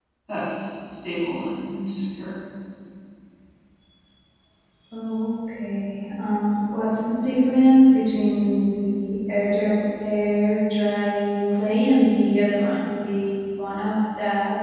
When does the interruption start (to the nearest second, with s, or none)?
none